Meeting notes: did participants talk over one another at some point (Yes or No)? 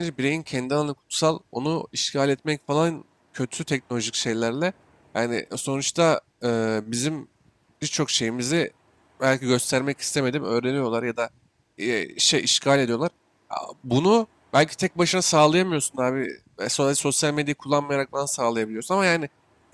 No